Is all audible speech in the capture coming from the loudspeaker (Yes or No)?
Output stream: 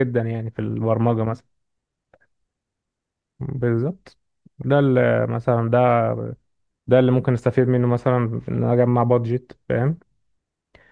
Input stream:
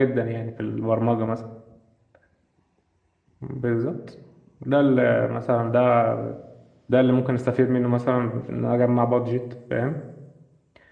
Yes